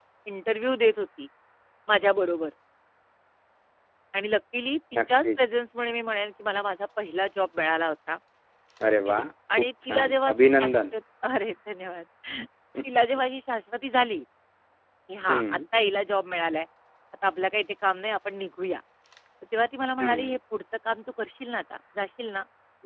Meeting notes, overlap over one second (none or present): present